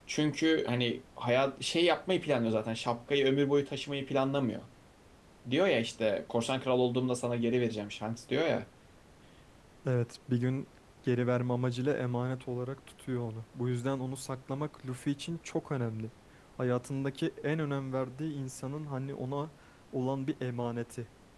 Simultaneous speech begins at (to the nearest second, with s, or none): none